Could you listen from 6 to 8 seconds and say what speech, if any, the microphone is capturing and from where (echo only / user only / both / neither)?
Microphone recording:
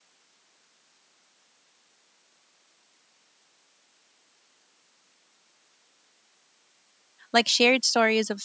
user only